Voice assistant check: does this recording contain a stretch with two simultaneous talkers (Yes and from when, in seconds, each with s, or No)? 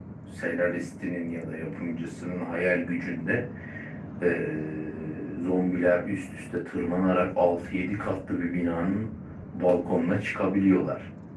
No